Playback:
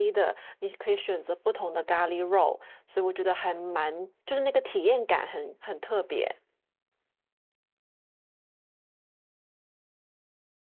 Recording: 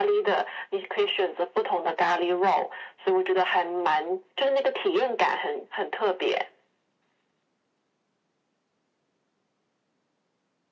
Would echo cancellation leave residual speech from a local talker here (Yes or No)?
No